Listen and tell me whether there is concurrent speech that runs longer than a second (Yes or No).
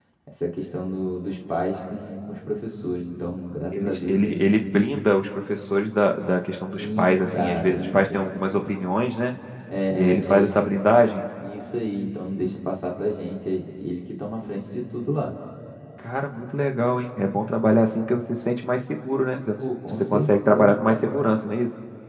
Yes